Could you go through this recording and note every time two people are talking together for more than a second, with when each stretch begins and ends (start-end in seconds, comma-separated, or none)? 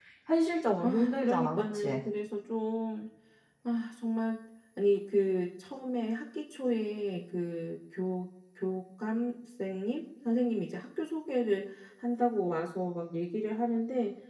0.8-2.0